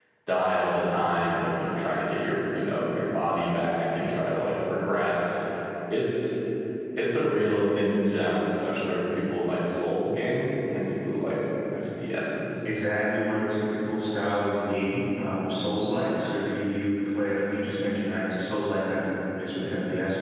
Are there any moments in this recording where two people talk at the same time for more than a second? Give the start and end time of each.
none

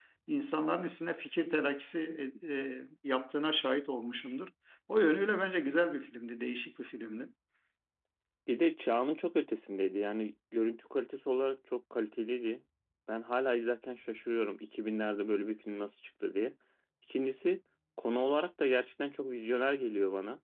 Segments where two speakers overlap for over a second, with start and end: none

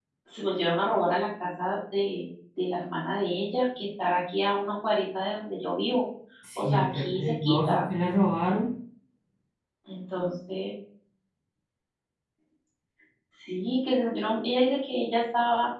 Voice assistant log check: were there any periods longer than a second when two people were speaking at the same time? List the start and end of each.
6.6-7.8

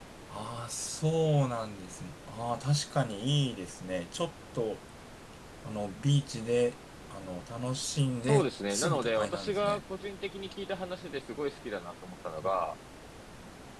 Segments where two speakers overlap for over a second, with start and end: 8.3-9.8

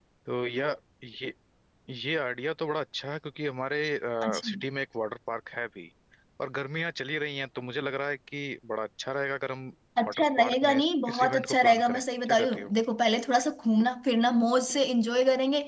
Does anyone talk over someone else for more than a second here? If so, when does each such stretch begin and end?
10.1-12.7

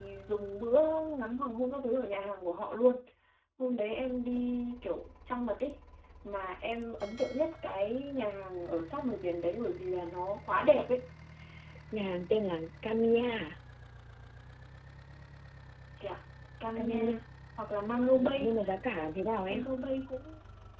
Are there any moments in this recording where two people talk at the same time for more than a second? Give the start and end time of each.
none

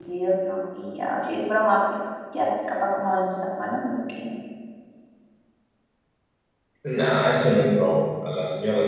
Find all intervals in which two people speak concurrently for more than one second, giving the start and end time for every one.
none

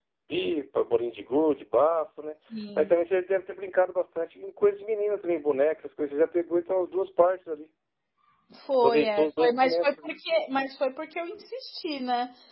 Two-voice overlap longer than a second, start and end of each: 8.8-10.2

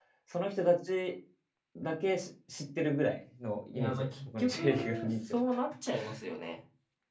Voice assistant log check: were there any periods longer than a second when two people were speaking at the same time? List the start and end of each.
3.8-5.4

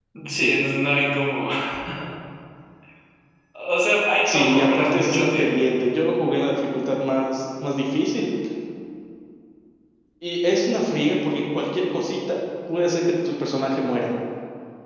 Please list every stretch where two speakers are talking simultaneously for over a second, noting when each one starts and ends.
4.2-5.6

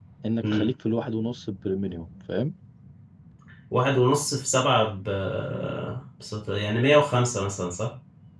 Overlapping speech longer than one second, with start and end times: none

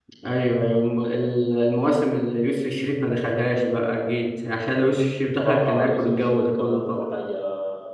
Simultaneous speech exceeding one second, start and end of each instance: 5.4-7.1

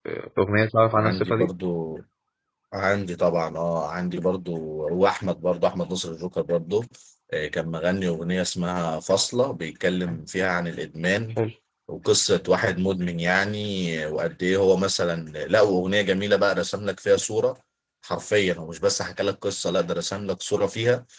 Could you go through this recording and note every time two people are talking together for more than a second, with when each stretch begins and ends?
none

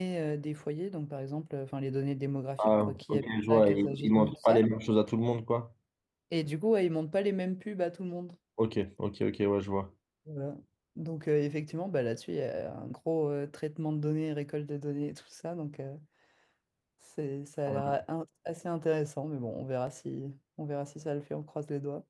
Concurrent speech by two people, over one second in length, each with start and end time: 2.6-4.6

